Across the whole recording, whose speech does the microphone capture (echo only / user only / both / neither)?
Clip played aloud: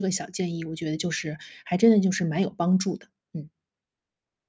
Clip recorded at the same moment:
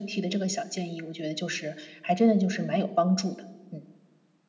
echo only